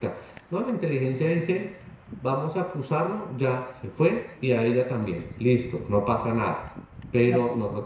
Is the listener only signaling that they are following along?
Yes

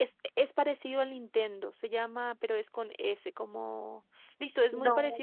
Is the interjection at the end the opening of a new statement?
No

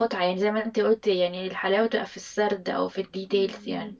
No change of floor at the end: No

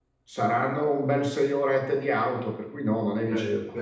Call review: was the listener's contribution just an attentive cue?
No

